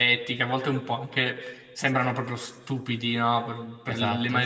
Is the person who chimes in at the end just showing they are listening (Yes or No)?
Yes